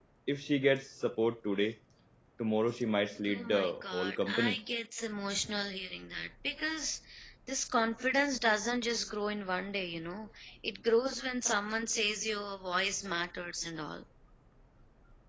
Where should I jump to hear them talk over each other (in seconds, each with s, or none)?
3.3 s